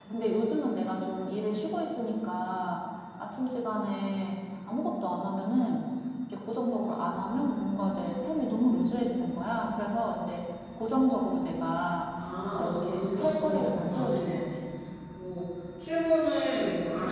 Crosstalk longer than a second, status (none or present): present